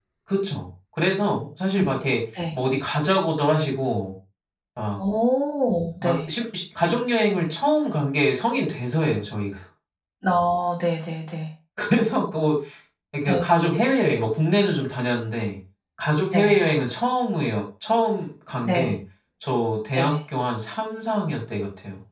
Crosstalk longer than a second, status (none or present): none